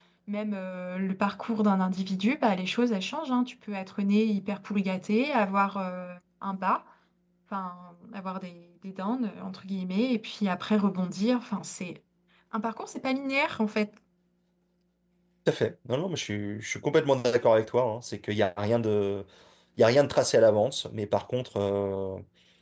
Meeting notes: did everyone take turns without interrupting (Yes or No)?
Yes